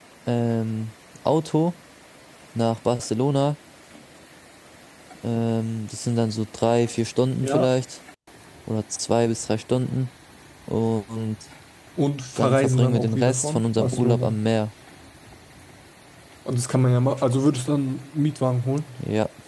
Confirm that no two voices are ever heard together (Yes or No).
No